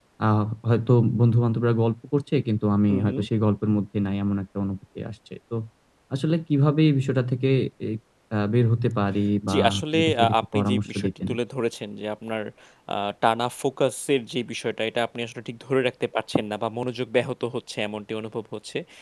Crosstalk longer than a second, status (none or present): present